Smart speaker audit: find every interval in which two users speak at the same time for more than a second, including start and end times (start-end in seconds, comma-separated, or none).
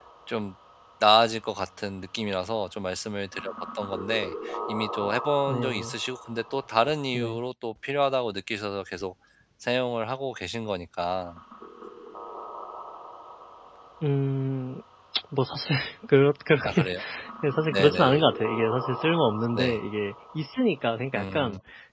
none